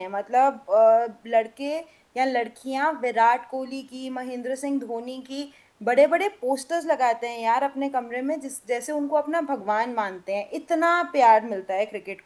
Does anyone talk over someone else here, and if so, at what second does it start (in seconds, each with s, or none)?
none